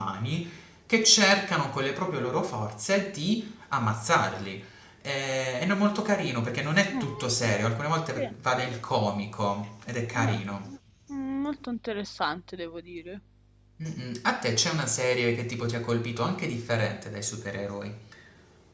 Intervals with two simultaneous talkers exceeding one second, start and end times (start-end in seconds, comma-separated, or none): none